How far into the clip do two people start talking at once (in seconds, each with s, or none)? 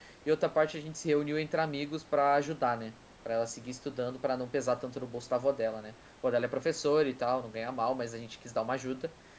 none